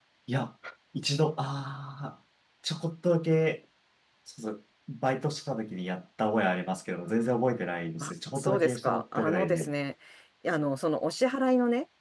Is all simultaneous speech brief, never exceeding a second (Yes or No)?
No